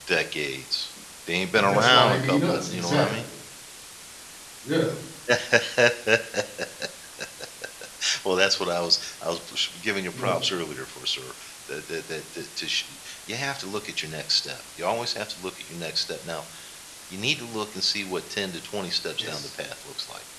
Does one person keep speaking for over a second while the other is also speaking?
Yes, from 1.6 s

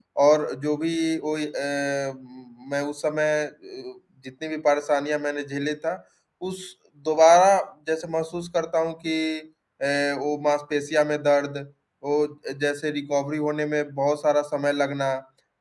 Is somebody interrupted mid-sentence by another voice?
No

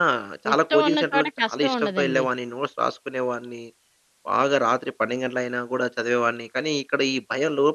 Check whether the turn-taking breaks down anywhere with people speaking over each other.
Yes, from 0.5 s

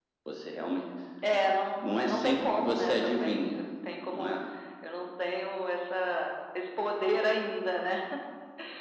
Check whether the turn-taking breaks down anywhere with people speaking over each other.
Yes, from 1.8 s

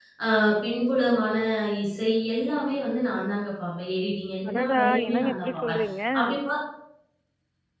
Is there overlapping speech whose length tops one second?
Yes, from 4.4 s

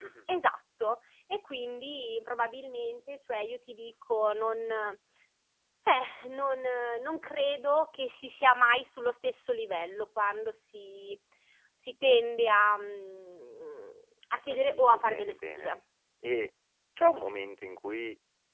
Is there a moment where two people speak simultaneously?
Yes, from 14.5 s

